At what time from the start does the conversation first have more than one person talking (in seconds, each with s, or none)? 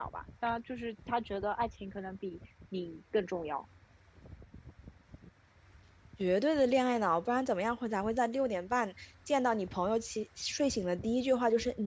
none